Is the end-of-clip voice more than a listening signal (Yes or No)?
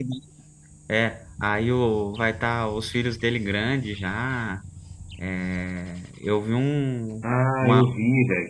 Yes